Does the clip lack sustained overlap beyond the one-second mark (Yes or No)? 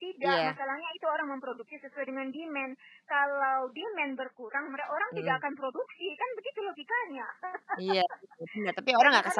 Yes